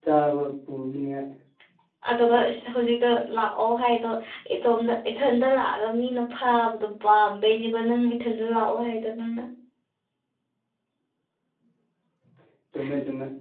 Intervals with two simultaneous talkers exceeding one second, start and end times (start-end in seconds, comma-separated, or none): none